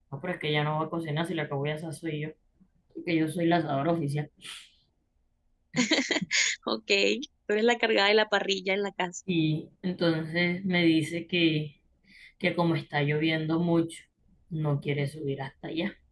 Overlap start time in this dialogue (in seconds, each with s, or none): none